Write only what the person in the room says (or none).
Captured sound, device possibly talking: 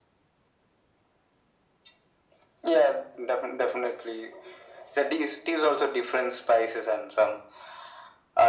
none